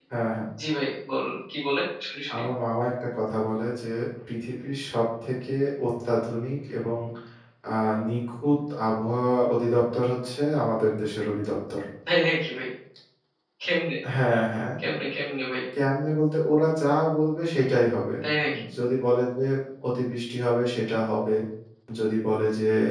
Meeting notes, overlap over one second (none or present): none